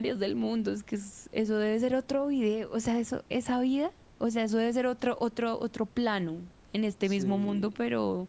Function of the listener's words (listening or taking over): listening